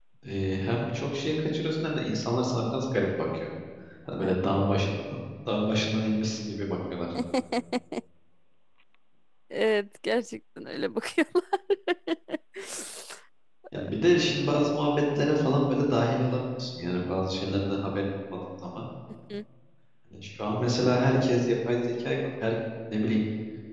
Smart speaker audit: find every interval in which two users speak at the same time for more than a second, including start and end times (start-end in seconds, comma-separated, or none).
none